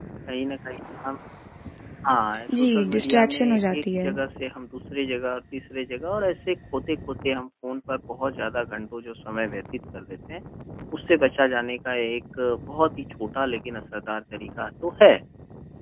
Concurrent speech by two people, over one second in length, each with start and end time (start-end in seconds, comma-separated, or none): 2.5-4.1